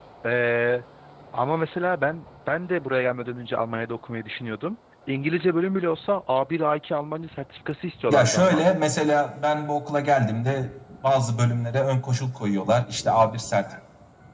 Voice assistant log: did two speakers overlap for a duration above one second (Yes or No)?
No